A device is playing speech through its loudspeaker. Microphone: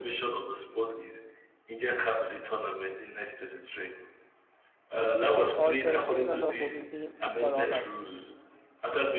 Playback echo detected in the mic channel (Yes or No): Yes